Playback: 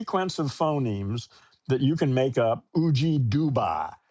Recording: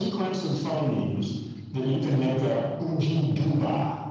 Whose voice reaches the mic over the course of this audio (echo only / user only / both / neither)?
echo only